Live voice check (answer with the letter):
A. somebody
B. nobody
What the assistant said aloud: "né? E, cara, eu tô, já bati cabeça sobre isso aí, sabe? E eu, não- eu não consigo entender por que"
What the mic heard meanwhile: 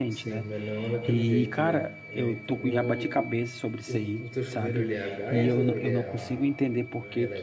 A